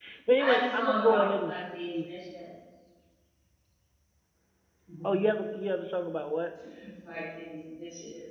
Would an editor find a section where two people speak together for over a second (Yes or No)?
Yes